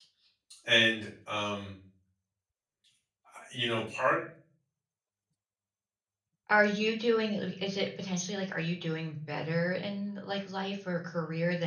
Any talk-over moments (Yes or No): No